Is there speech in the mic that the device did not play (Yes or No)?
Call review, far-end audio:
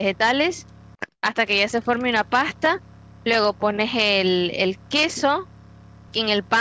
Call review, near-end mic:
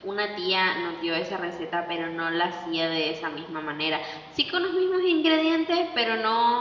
Yes